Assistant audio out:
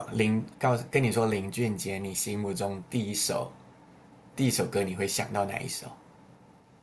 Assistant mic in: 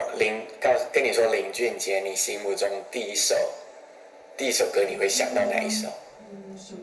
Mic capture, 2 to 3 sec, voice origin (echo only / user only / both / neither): echo only